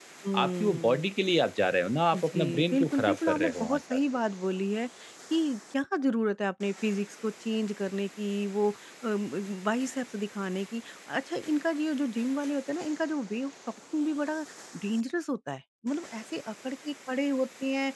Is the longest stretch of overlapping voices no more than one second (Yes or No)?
No